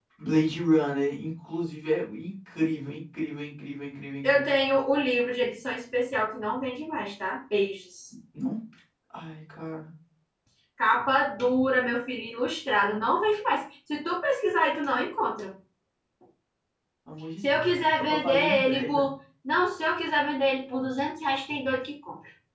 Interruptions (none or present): present